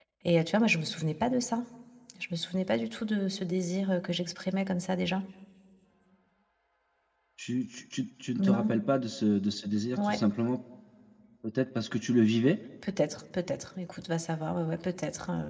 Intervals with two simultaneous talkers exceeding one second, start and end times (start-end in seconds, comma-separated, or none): none